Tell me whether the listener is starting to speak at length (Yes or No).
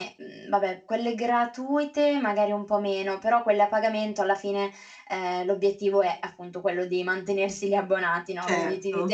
No